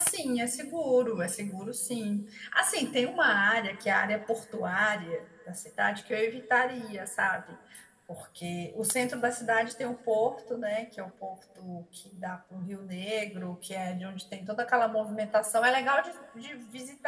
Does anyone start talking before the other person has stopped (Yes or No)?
No